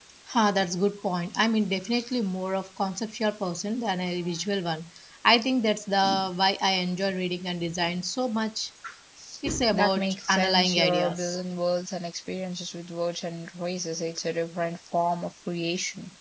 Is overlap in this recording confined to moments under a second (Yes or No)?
No